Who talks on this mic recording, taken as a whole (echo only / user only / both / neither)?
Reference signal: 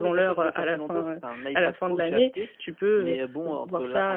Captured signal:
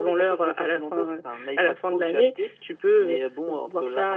echo only